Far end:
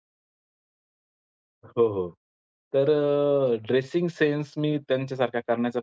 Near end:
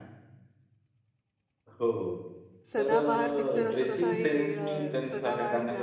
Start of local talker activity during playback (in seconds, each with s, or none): 2.7 s